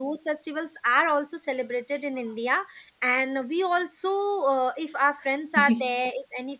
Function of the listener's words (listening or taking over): listening